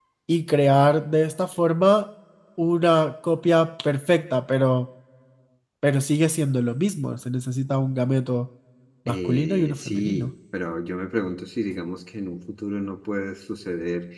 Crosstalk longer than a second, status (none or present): present